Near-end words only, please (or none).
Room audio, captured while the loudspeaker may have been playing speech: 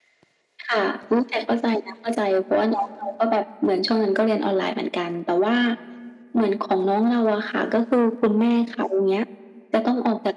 none